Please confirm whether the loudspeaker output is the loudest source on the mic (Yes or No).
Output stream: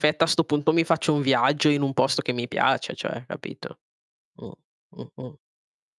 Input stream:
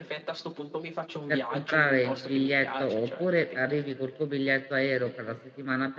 No